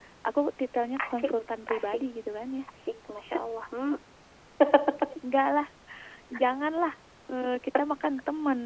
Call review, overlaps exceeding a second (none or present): none